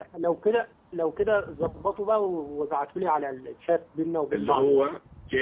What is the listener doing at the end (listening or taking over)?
taking over